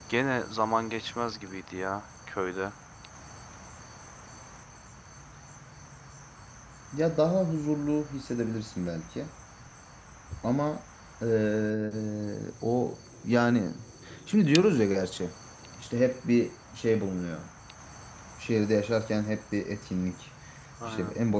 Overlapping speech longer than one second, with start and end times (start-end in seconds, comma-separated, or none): none